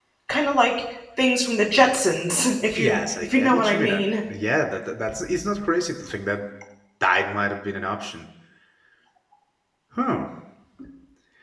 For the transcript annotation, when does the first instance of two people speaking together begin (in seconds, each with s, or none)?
2.8 s